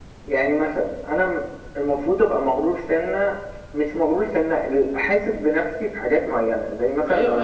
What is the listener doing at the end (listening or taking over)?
taking over